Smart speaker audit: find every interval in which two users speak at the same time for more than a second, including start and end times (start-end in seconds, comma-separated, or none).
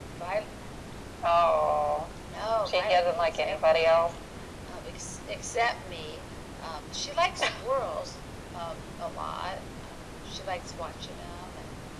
2.6-4.1